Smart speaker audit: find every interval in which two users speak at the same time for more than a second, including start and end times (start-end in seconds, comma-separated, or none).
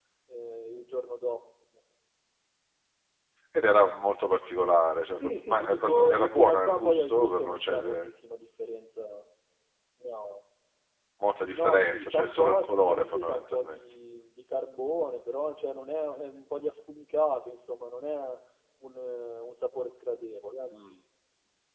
5.2-8.1, 11.5-13.8